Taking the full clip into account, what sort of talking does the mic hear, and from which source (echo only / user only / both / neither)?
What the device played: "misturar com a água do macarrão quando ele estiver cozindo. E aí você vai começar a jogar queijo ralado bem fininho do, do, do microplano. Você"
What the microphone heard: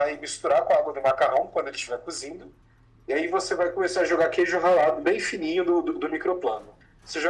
echo only